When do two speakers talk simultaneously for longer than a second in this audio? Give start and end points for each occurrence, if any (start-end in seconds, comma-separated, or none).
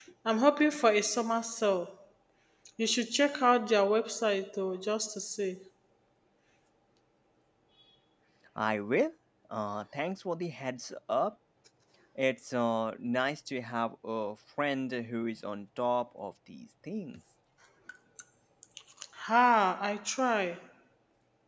none